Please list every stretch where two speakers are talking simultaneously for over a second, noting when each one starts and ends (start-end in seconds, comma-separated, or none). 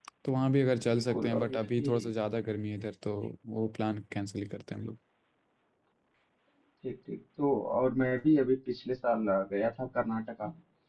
0.9-2.1